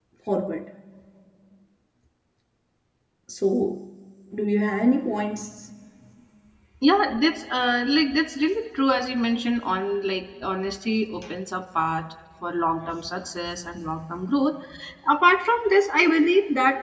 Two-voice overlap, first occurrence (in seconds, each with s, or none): none